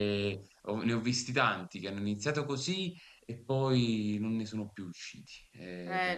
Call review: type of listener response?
taking over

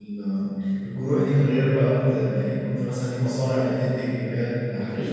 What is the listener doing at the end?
taking over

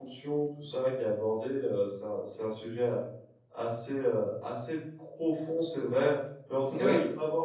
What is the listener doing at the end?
listening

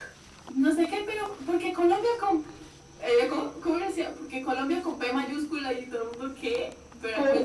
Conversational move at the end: listening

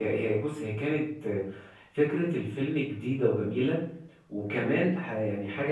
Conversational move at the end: listening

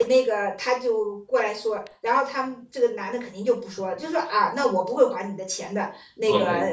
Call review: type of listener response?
listening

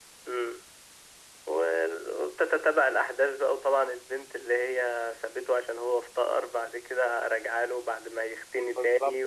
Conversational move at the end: taking over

